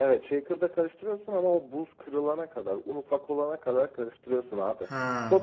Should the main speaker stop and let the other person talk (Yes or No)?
No